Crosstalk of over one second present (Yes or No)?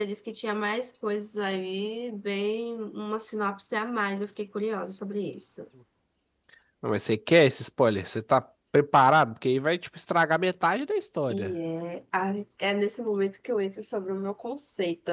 No